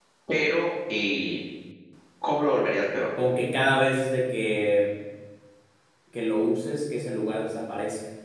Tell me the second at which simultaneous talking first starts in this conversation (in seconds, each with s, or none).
none